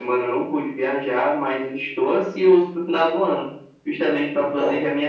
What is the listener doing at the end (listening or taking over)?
listening